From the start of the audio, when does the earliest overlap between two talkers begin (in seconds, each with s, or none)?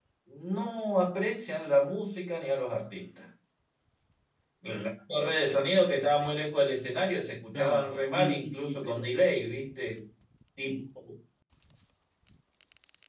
7.5 s